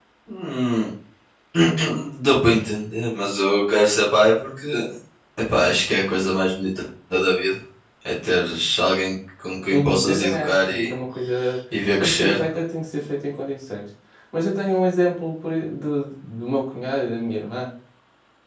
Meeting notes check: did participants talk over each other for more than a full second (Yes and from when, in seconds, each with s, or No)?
Yes, from 9.7 s